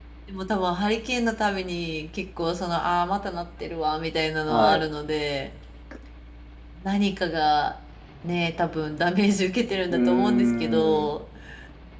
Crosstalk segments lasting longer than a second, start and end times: 9.9-11.1

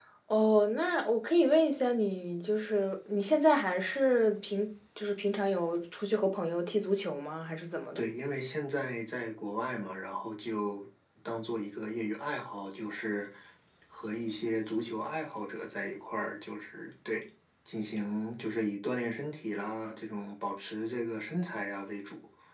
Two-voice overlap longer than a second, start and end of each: none

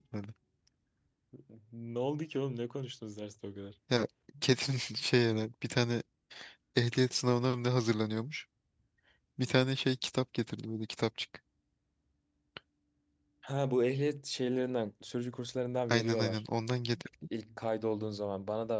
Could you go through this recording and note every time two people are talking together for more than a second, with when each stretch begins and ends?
none

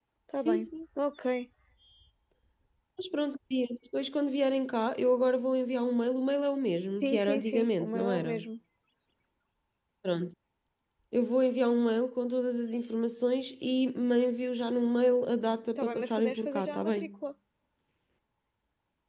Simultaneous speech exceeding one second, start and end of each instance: 7.0-8.4, 15.8-17.1

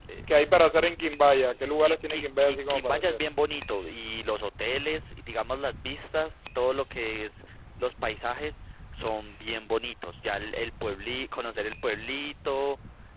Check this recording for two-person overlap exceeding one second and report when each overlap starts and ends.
1.8-3.2

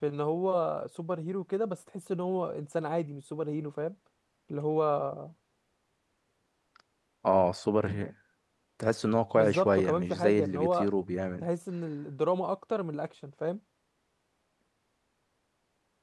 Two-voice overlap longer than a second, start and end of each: 9.4-10.9

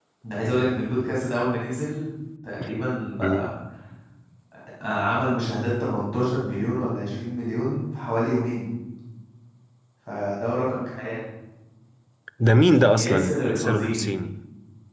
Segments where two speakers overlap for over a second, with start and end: 12.9-14.1

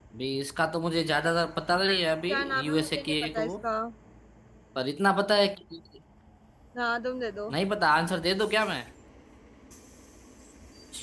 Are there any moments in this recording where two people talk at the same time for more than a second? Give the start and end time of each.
2.3-3.5

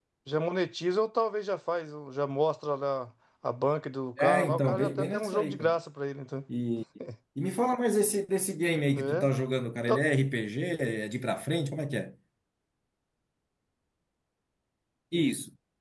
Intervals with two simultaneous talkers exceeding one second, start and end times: 4.2-5.7

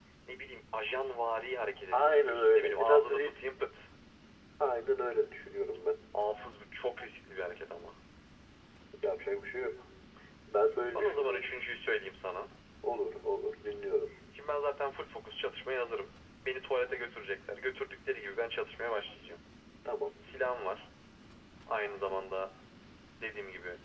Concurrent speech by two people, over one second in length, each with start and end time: 1.9-3.4

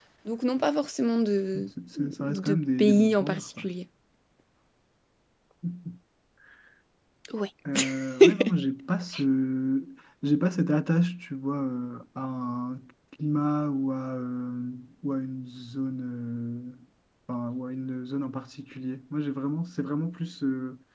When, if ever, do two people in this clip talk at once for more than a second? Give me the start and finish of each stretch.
2.2-3.6

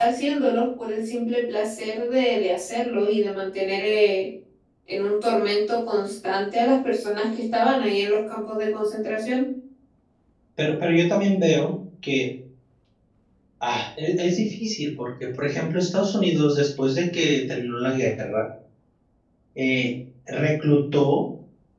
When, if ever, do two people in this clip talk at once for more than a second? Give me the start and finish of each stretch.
none

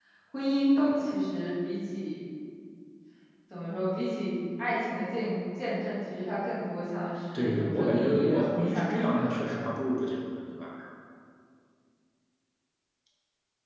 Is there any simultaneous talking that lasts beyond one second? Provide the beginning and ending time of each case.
7.3-9.6

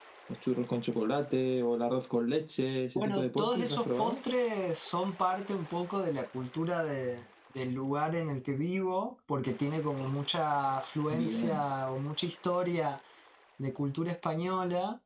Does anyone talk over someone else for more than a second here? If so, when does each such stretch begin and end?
3.0-4.2

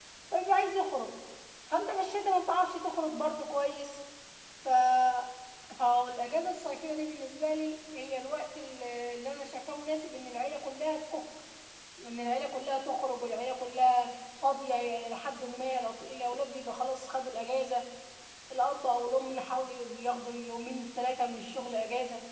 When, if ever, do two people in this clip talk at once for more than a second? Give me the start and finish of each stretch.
none

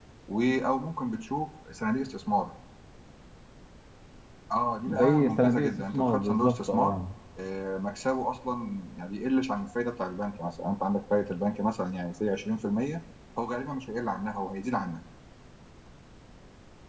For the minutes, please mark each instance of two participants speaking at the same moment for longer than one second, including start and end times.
4.9-7.0

